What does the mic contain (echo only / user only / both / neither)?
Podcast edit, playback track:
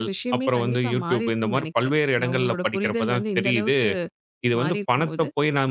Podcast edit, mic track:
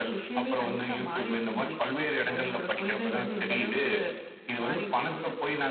echo only